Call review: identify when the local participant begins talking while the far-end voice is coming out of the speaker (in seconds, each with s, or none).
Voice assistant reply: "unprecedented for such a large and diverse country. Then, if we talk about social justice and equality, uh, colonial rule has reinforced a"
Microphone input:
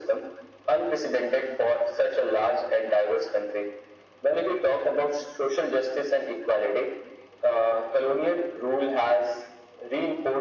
none